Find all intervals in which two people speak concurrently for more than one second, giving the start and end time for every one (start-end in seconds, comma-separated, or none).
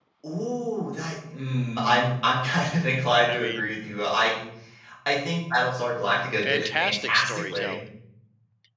6.4-7.8